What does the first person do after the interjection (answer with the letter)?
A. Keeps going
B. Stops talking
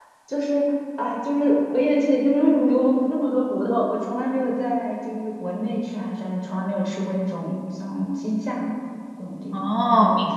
B